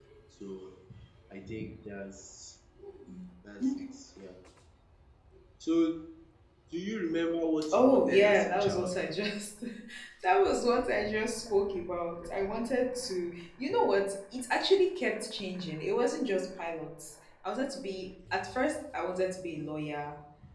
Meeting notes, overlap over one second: present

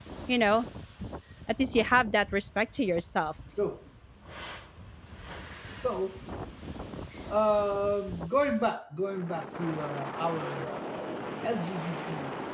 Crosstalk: none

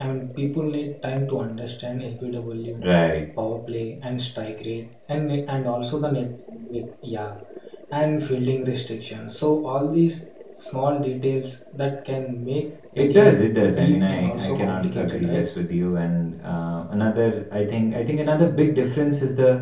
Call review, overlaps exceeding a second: present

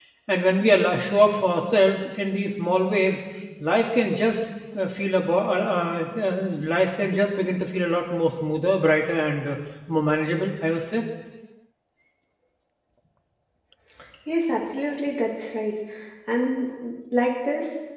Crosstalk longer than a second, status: none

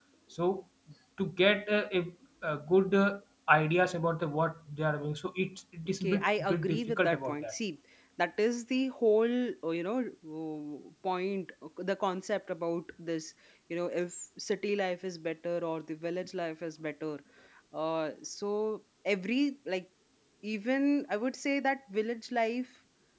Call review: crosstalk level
present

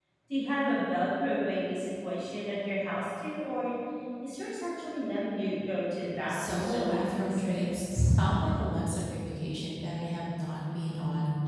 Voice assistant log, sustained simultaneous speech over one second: present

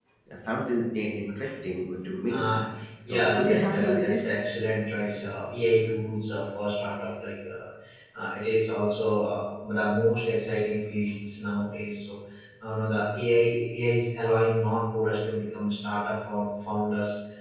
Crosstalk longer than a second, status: present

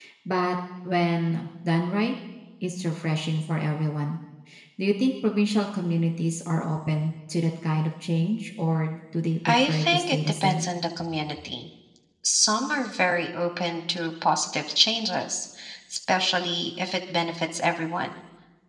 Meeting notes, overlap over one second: present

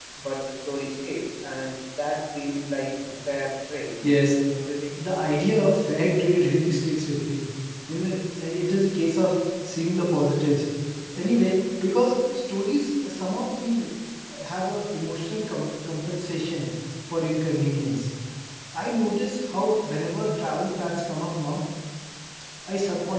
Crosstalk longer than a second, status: none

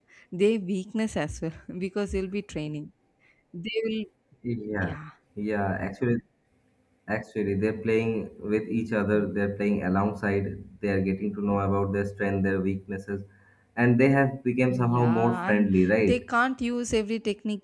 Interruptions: present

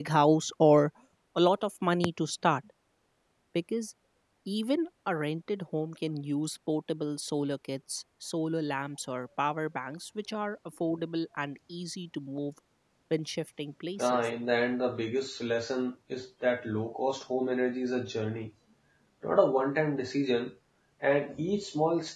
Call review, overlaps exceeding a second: none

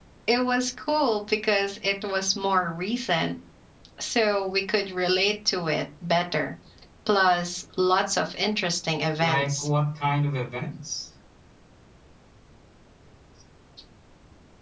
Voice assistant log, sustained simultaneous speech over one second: none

